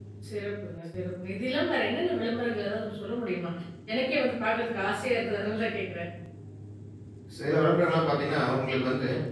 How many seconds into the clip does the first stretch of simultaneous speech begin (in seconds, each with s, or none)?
none